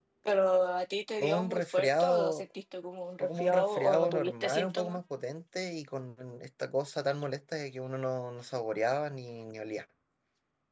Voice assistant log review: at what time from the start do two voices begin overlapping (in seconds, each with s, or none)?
1.2 s